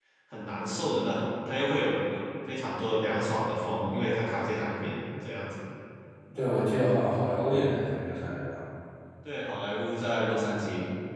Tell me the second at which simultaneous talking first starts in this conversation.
none

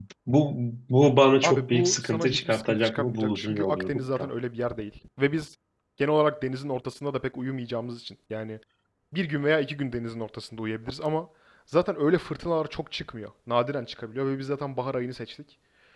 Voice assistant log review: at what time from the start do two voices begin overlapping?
1.4 s

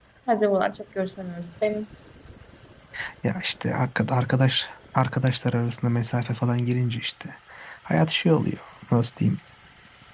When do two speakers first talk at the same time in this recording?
none

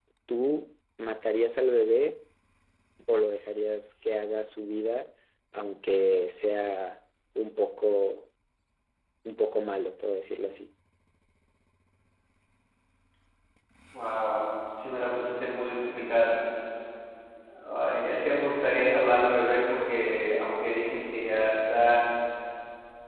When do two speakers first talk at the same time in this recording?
none

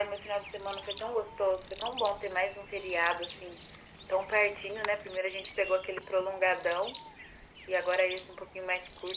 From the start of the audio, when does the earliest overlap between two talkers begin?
none

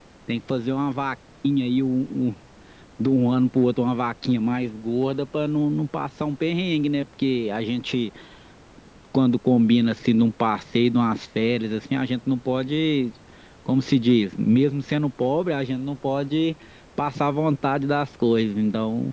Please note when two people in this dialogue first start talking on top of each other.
none

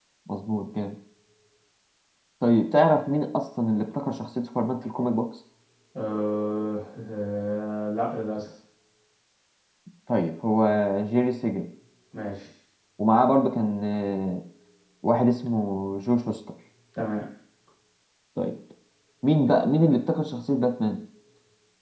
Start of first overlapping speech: none

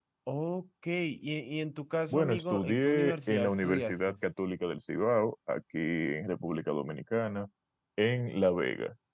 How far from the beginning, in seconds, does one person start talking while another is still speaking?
2.1 s

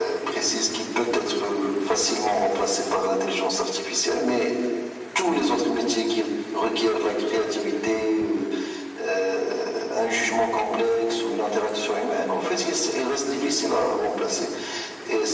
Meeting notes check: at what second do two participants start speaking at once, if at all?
none

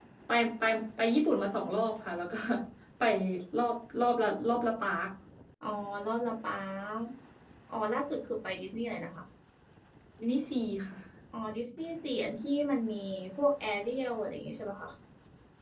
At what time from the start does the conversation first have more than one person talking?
none

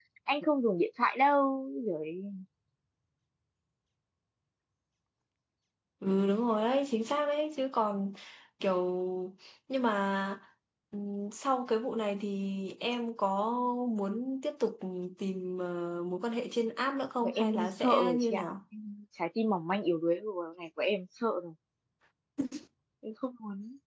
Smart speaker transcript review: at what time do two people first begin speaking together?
17.2 s

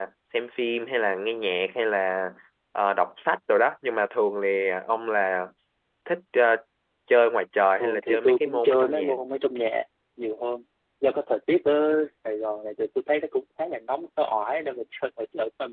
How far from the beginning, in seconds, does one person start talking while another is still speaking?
7.8 s

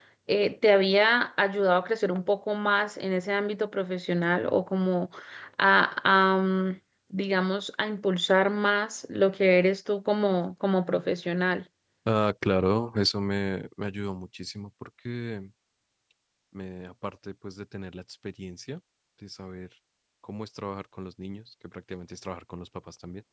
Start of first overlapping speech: none

